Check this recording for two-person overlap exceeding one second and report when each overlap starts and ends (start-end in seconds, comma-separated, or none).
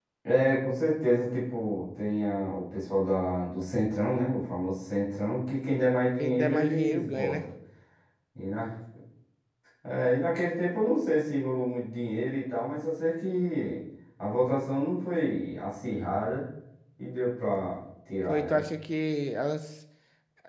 6.2-7.4